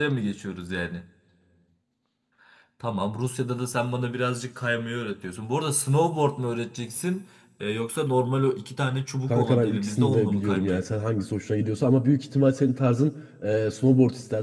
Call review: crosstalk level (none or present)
present